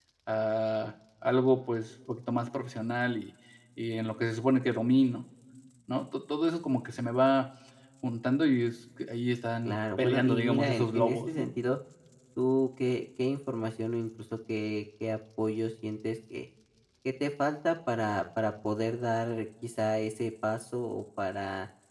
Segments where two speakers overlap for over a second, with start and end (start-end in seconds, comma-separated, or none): 9.6-11.5